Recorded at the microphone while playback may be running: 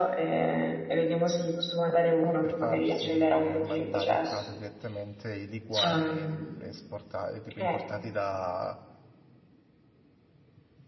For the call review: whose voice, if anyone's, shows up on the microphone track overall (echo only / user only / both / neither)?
both